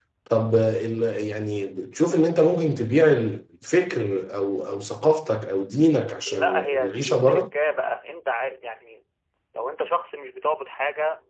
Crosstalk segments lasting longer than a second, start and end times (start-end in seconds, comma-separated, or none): 6.2-7.5